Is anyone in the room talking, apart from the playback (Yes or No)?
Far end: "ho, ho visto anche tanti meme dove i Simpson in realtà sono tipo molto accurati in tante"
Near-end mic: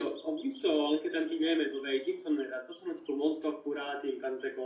No